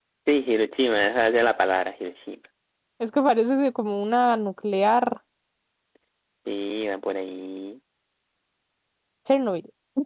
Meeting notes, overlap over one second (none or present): none